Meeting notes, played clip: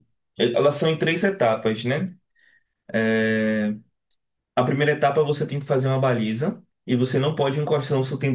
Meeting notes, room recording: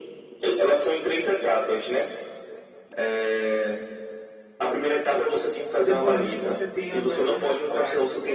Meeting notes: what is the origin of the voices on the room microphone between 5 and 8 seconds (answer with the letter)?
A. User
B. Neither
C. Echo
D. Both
D